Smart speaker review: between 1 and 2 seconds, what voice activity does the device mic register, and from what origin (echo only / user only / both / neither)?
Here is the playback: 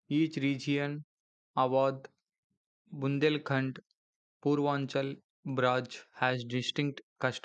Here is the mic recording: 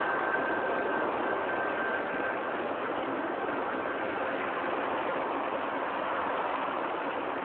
neither